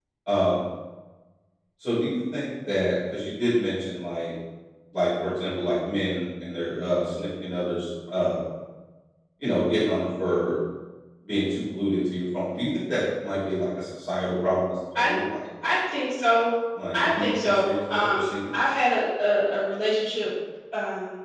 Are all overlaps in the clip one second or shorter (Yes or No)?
No